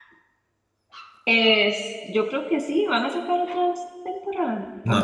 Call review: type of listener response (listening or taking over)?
taking over